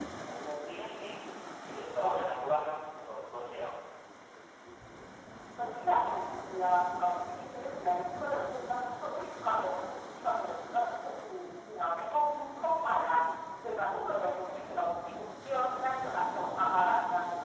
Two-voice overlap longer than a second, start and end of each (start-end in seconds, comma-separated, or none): none